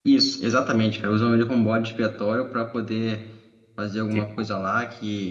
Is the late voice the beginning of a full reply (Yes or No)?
No